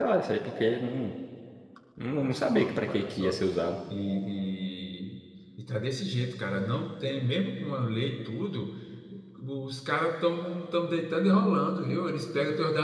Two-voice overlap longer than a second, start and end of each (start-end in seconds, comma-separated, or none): 2.1-3.4